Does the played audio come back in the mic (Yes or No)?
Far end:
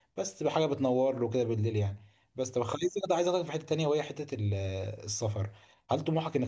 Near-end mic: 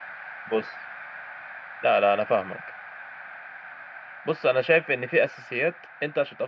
No